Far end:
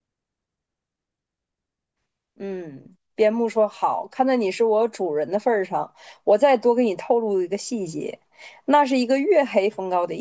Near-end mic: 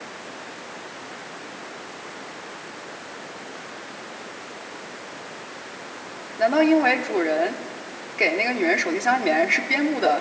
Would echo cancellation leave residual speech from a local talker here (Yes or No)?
Yes